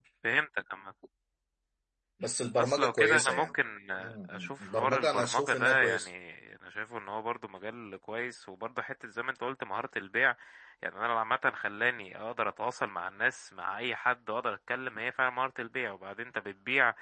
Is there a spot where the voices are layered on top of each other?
Yes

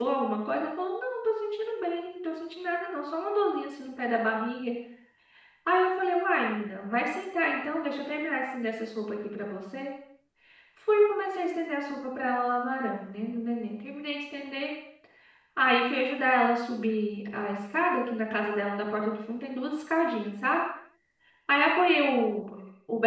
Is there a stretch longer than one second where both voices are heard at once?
No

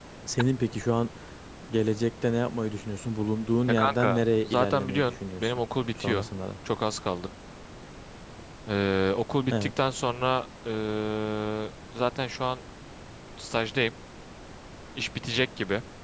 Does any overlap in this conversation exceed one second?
Yes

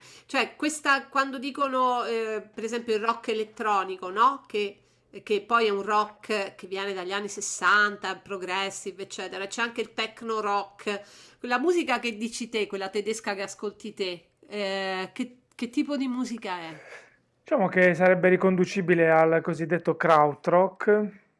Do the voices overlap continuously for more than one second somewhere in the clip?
No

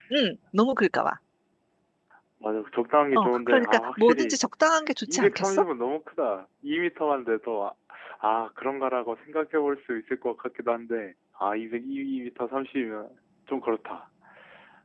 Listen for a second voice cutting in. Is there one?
Yes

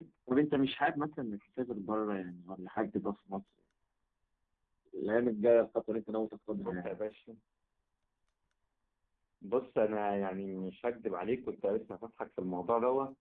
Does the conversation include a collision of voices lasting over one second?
No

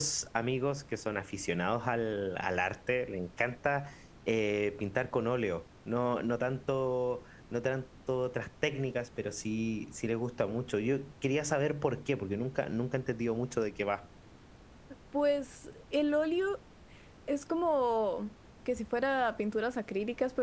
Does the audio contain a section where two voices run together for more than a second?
No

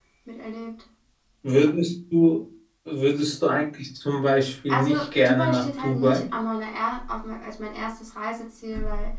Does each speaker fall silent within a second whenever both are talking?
No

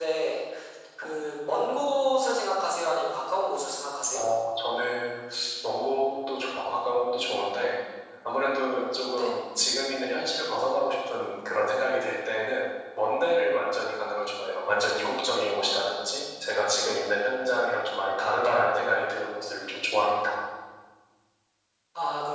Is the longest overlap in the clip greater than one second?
No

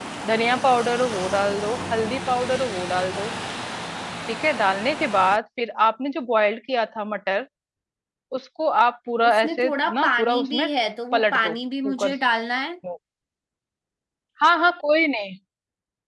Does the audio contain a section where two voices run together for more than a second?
Yes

